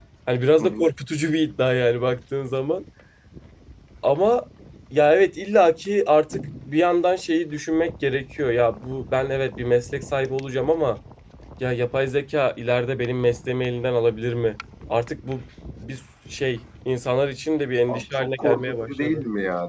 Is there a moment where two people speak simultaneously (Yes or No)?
Yes